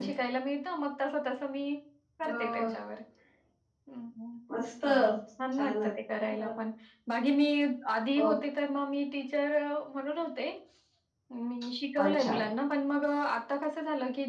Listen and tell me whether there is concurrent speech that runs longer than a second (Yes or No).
No